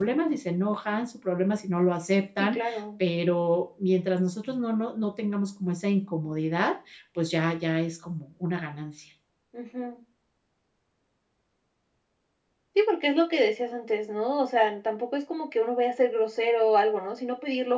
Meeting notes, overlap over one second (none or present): none